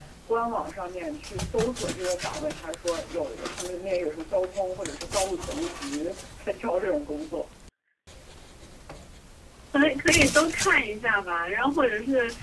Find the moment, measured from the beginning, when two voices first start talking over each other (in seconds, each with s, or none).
none